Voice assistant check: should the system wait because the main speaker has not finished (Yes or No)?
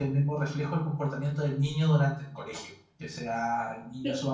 Yes